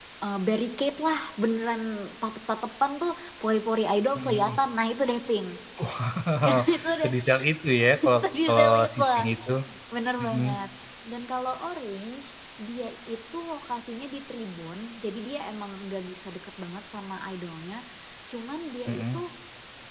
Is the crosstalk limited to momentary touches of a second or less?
No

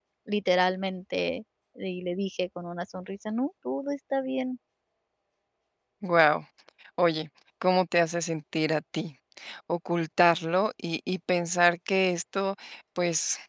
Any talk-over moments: No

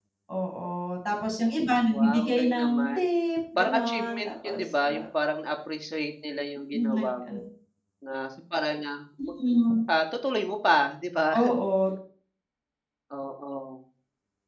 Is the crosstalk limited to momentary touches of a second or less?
No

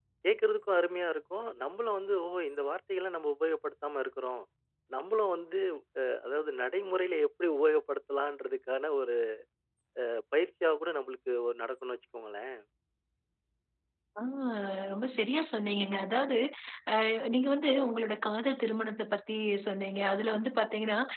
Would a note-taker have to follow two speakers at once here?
No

